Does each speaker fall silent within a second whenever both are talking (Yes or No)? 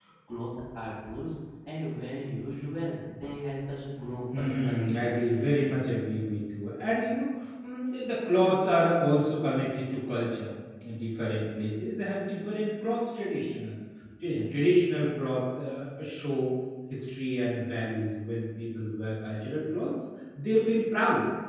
No